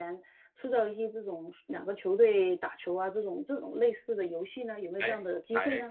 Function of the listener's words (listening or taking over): taking over